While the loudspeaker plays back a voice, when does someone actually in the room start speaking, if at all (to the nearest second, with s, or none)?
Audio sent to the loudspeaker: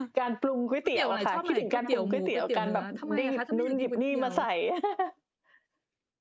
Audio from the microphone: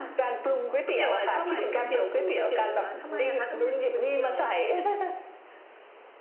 none